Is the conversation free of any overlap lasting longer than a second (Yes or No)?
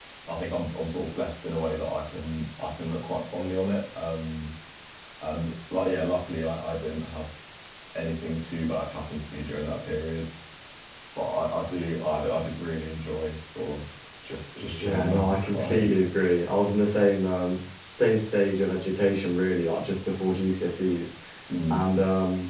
No